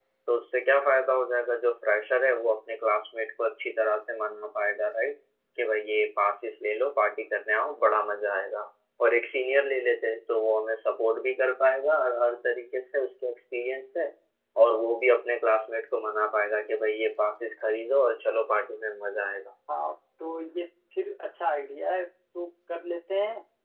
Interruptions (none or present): none